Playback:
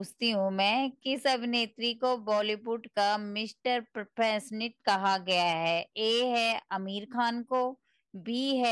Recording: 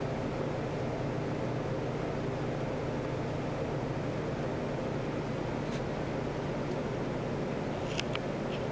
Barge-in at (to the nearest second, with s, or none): none